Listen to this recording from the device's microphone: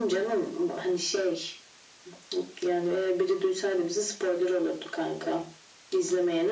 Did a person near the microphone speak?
No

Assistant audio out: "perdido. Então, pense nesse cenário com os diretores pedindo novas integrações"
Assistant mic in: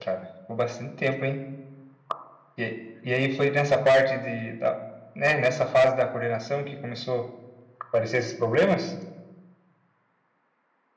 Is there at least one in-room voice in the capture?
Yes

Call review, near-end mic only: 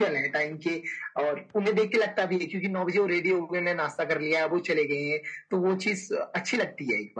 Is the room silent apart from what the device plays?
Yes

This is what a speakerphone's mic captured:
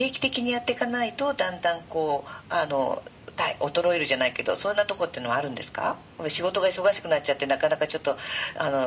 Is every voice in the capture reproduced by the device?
Yes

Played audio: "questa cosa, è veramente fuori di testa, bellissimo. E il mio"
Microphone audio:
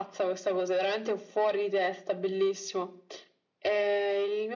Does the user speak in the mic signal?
No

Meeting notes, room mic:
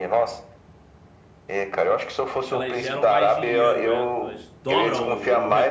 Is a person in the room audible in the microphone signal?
Yes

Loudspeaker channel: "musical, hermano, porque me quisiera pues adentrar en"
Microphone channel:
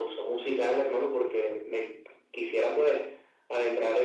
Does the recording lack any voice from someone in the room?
Yes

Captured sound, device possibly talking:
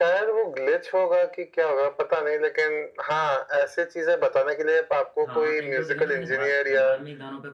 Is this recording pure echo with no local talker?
No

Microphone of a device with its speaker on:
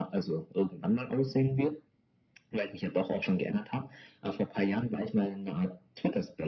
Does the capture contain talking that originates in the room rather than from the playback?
No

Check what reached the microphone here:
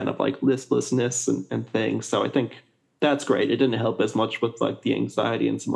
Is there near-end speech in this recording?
No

